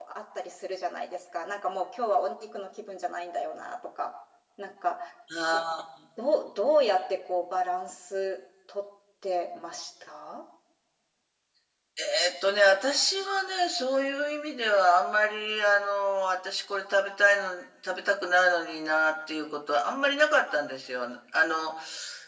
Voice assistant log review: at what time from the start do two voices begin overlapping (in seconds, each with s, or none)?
none